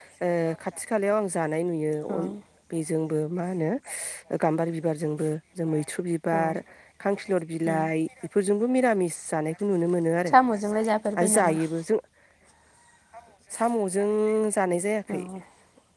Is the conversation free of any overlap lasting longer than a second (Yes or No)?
Yes